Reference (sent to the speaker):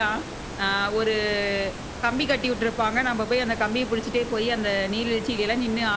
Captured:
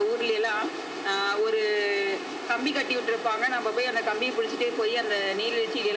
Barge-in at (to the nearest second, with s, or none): none